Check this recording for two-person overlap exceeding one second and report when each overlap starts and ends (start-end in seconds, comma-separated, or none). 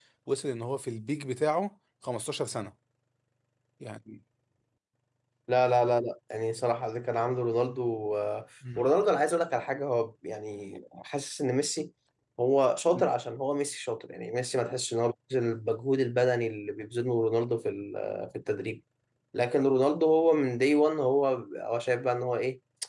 none